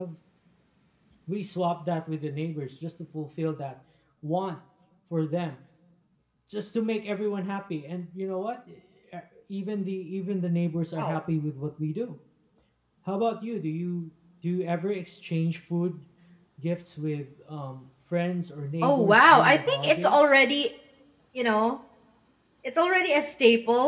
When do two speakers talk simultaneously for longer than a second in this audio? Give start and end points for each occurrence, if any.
18.8-20.2

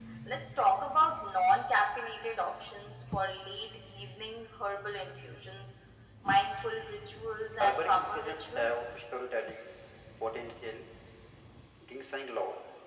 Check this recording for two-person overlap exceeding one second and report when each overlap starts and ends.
7.6-8.8

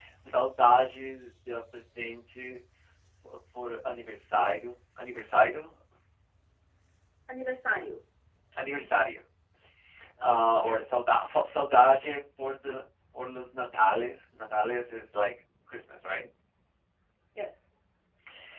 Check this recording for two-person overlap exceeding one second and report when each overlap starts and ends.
none

